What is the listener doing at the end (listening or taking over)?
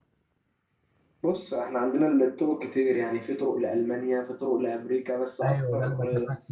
taking over